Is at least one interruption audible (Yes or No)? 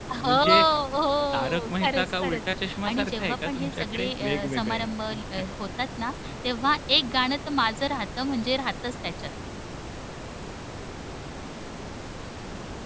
Yes